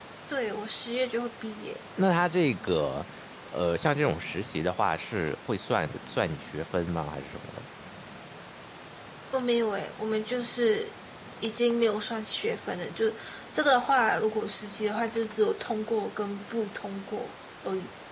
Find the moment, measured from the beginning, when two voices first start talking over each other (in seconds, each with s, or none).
none